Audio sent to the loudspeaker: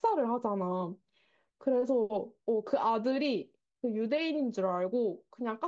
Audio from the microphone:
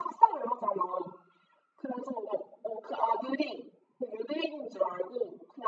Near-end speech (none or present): none